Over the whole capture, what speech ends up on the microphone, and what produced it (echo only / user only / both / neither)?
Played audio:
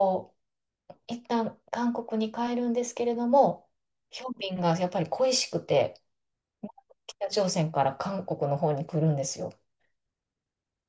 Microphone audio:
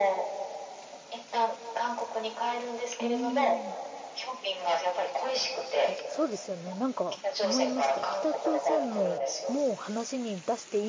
both